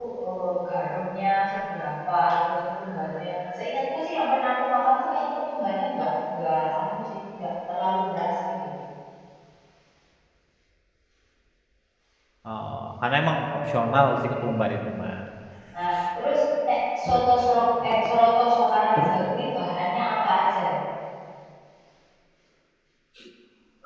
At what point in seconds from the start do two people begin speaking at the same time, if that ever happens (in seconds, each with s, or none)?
13.4 s